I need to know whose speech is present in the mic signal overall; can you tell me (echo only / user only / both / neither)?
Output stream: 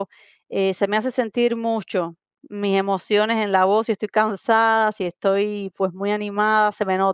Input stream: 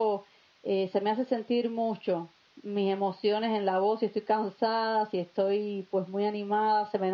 echo only